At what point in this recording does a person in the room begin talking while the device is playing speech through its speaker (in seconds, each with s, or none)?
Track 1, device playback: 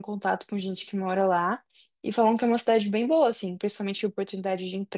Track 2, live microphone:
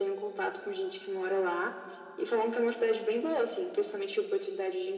none